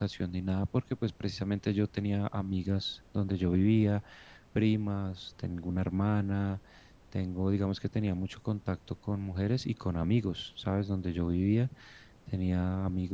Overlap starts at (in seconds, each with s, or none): none